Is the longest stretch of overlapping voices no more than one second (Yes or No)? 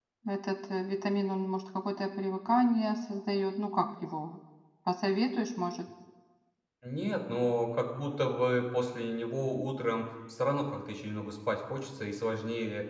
Yes